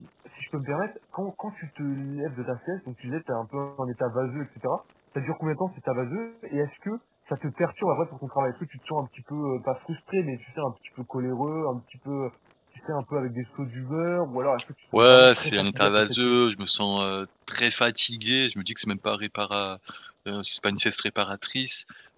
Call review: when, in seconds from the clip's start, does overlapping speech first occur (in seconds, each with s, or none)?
14.9 s